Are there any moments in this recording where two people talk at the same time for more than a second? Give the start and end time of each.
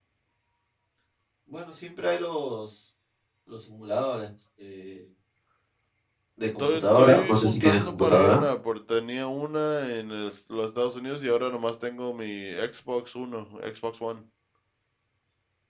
6.6-8.4

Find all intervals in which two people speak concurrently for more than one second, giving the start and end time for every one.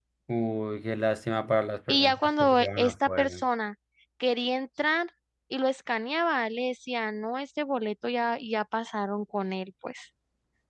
1.9-3.4

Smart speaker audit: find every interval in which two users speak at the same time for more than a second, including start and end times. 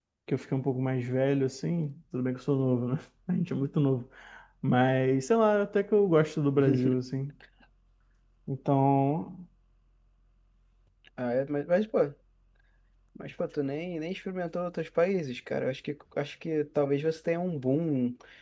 none

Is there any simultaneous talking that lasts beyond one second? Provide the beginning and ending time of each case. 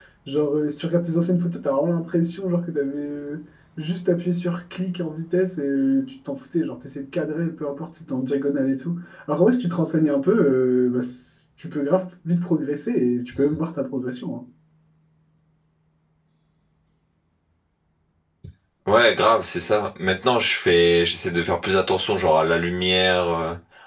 none

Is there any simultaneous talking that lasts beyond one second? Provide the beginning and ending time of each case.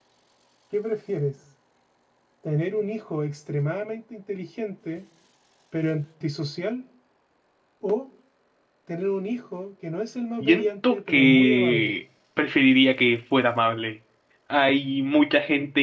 10.4-11.9

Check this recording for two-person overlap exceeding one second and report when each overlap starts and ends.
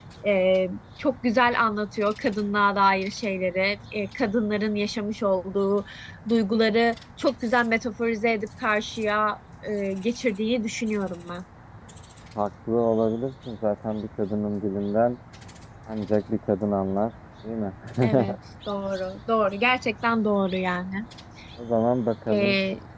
none

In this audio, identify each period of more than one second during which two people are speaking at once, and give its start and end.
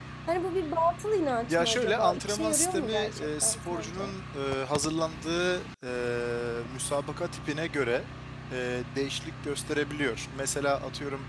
1.5-4.1

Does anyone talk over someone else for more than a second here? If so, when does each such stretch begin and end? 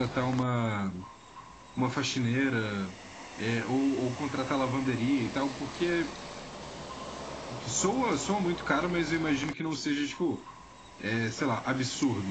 none

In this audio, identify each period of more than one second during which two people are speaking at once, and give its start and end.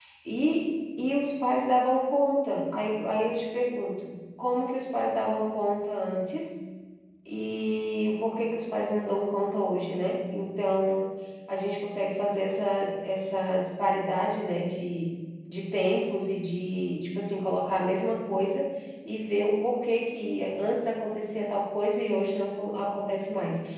none

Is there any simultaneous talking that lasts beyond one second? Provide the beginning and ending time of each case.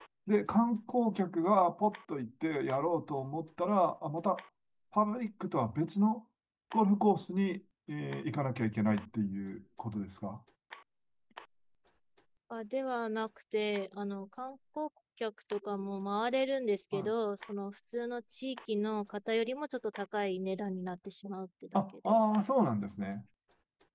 none

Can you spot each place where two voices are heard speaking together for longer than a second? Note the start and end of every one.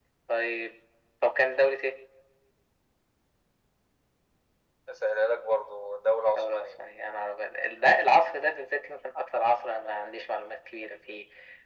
none

